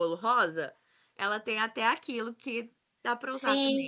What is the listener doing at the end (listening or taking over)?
taking over